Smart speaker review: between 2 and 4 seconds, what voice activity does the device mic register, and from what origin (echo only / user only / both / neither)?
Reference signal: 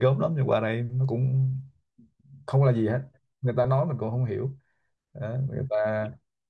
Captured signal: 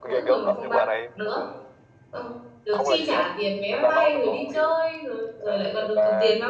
both